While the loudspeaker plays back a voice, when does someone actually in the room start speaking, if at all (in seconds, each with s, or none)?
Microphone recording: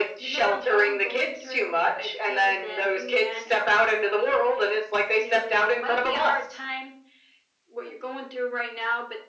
none